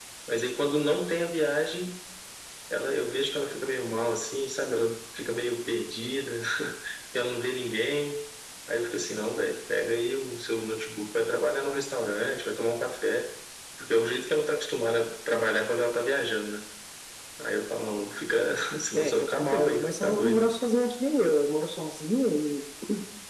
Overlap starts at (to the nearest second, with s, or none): 19 s